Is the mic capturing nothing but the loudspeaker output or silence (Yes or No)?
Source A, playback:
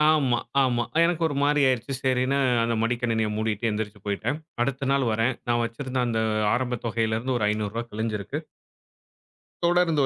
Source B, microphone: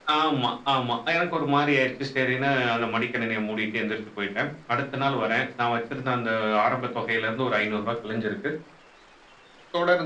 Yes